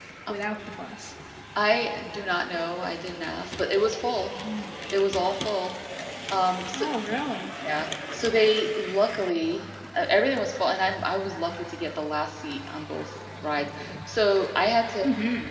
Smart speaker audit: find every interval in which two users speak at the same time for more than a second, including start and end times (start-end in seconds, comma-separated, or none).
none